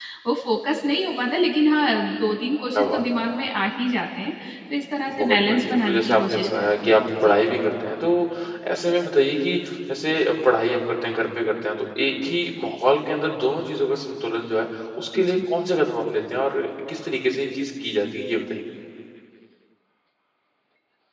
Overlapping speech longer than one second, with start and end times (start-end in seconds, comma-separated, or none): 5.1-7.4